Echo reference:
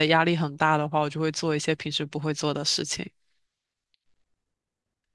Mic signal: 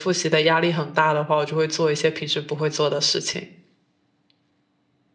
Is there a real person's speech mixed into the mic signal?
No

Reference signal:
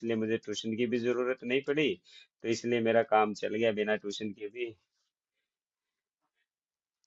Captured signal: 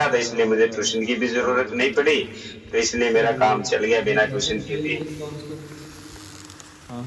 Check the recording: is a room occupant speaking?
Yes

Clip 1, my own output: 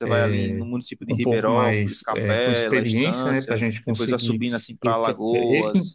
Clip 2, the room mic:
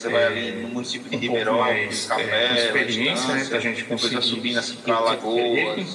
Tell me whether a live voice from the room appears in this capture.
No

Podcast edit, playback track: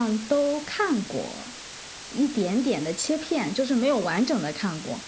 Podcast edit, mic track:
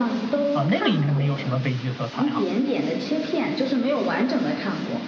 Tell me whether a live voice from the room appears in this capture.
Yes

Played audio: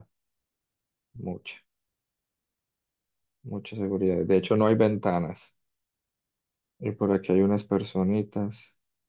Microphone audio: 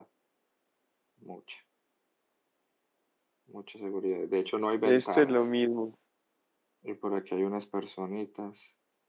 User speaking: Yes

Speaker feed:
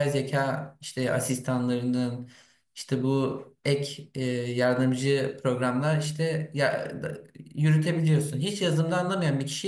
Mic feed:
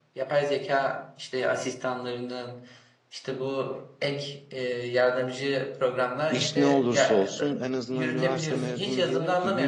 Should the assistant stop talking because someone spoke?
Yes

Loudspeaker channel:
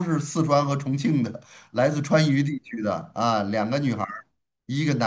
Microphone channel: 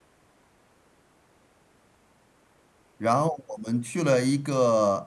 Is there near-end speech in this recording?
Yes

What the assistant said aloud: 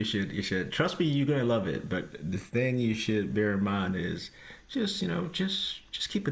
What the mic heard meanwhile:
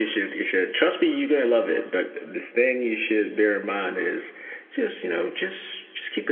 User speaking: No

